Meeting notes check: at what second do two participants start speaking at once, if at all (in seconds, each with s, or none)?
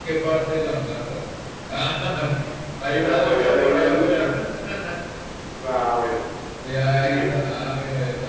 2.9 s